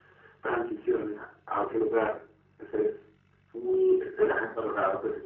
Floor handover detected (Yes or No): No